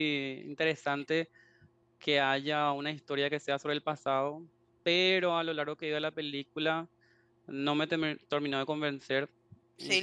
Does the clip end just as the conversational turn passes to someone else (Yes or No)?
No